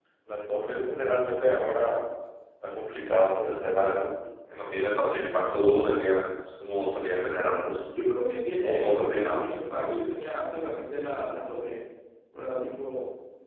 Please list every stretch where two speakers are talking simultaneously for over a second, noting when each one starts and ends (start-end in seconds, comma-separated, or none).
8.6-10.0